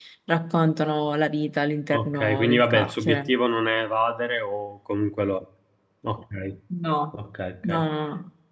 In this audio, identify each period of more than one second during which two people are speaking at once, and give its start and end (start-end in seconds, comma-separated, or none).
1.9-3.3